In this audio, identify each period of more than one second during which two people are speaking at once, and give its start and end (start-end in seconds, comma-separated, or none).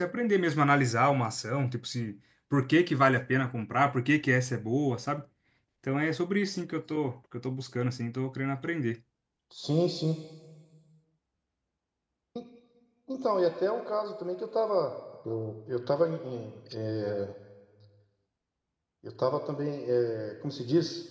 none